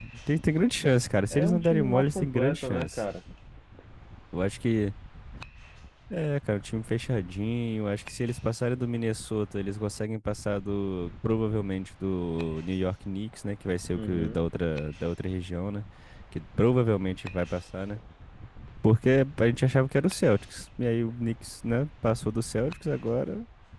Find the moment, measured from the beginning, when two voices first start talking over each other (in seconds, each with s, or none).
1.3 s